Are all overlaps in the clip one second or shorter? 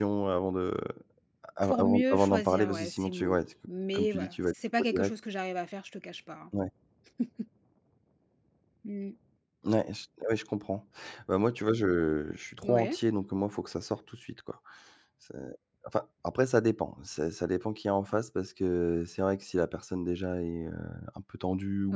No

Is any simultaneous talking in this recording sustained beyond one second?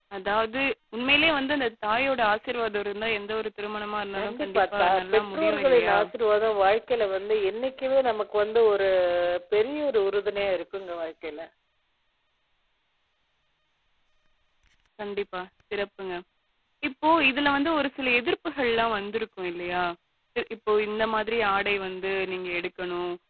Yes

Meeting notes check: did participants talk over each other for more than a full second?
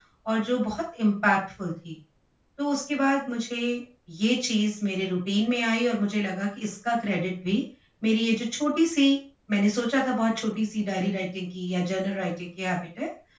No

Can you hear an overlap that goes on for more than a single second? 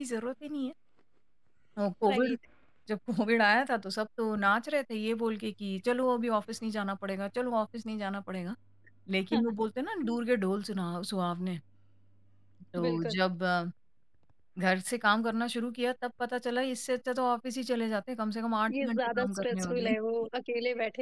Yes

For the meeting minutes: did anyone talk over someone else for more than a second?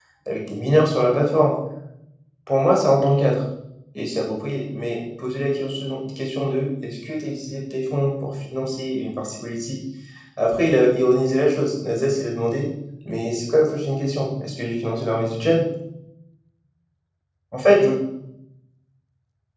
No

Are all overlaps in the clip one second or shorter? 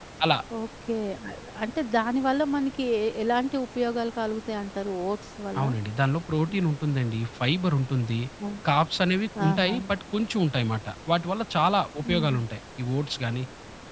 Yes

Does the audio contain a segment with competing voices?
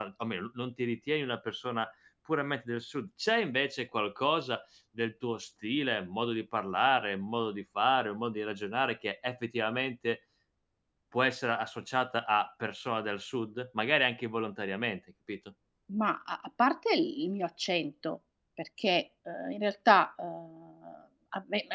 No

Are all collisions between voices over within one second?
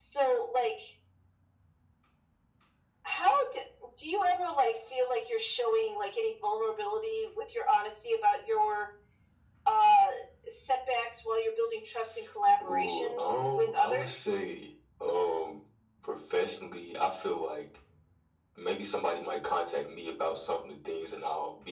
No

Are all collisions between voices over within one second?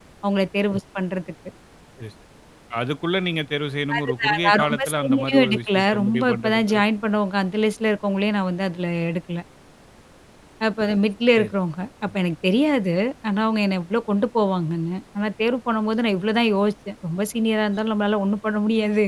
No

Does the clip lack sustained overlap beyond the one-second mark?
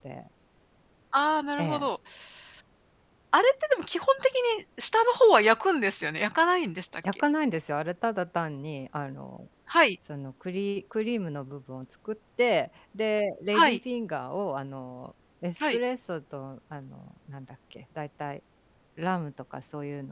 Yes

